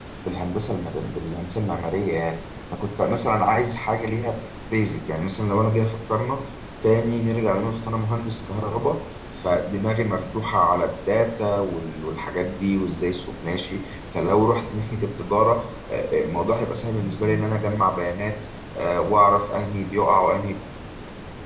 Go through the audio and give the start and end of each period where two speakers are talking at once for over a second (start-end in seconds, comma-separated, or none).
none